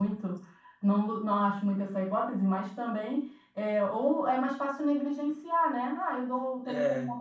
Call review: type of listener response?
listening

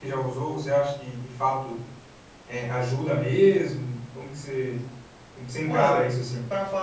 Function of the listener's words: taking over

